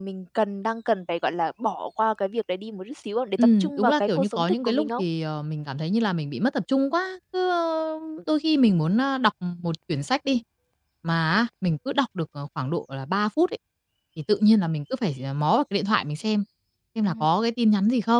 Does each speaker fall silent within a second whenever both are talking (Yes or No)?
No